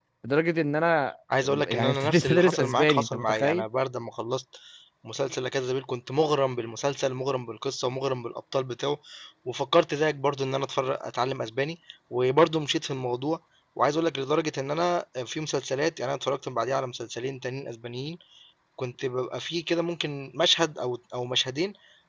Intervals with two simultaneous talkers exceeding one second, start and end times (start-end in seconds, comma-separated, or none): 1.6-3.6